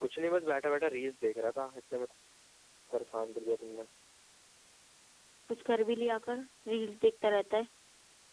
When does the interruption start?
none

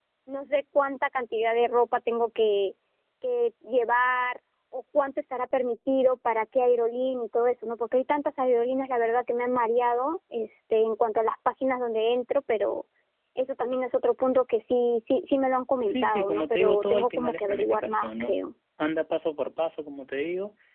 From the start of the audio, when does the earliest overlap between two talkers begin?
15.9 s

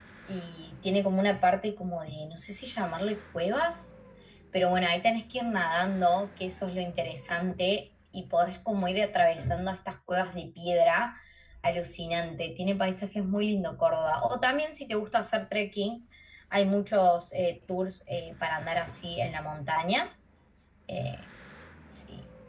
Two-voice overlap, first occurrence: none

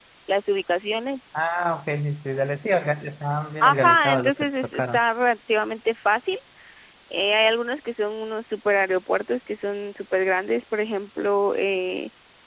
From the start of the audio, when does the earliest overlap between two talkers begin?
3.6 s

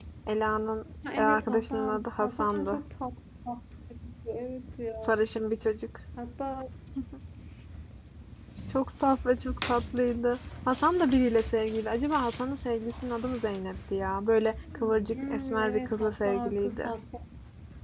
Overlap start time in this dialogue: 1.2 s

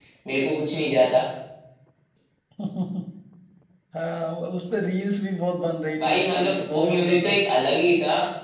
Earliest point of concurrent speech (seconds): 6.0 s

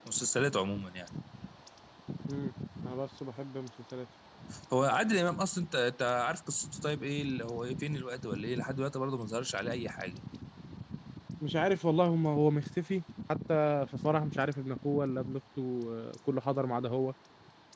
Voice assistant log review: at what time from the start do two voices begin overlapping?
none

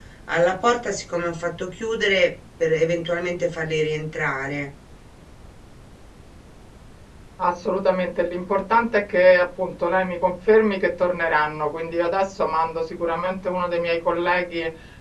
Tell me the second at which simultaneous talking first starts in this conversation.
none

